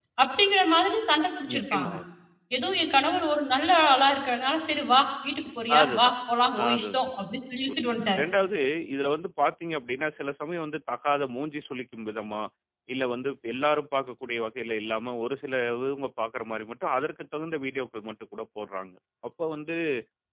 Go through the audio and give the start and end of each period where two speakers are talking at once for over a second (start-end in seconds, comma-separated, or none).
none